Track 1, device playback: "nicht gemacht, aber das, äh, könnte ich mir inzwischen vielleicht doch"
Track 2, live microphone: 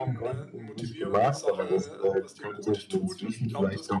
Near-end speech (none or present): present